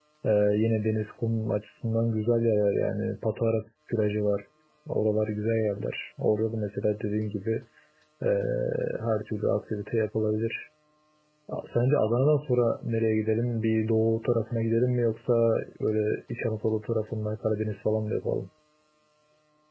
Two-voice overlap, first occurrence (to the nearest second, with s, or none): none